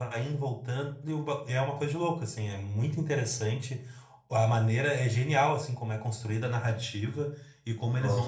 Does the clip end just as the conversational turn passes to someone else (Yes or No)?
Yes